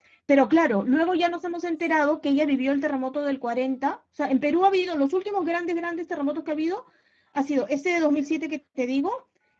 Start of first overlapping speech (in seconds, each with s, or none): none